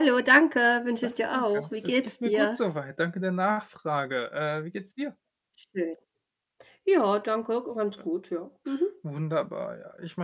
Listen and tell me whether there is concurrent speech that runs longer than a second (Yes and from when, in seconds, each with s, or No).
Yes, from 1.0 s